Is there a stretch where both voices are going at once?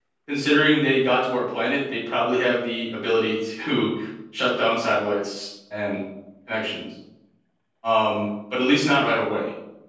No

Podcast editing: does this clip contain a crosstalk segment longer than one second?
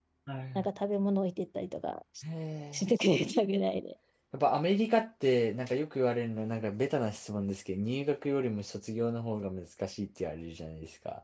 No

